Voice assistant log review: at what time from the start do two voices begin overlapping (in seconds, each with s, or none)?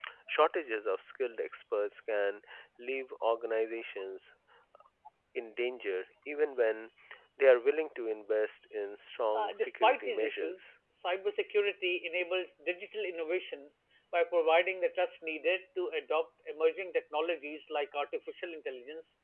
9.3 s